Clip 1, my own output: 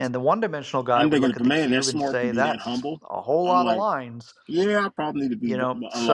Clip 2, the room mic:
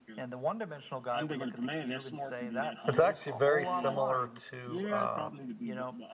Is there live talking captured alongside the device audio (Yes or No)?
Yes